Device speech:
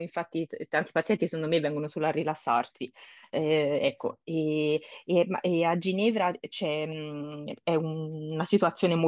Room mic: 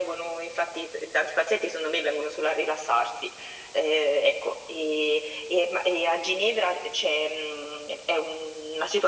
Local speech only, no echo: none

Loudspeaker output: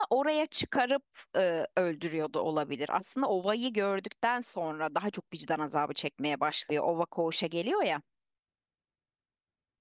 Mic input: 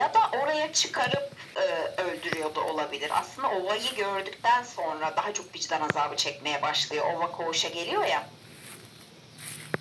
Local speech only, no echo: none

